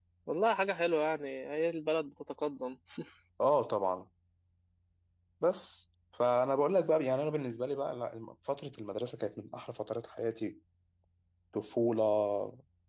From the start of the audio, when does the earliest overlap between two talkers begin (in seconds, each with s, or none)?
none